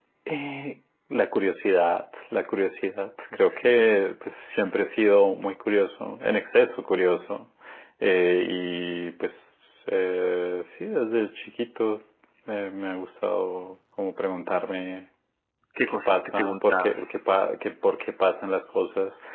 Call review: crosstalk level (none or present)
present